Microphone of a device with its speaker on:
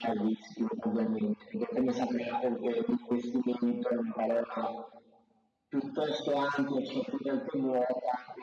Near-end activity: none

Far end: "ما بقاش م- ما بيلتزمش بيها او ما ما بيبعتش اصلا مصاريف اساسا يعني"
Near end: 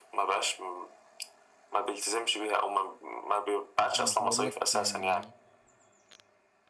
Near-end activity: present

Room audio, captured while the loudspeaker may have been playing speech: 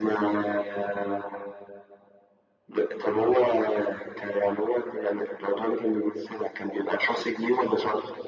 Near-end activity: none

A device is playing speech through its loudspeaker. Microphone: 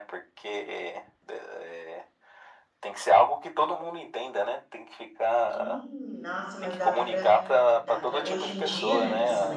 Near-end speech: present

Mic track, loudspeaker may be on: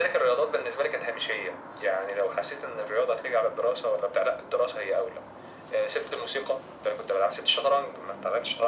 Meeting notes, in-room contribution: none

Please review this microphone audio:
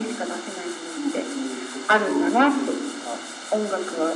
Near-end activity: none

